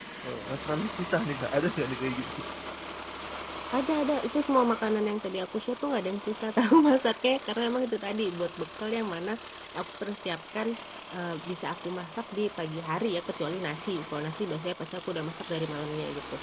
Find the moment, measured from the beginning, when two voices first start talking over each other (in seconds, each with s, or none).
none